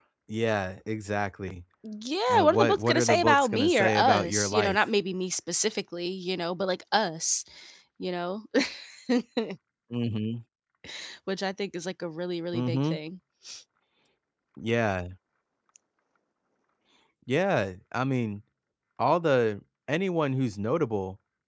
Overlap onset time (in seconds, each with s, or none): 2.3 s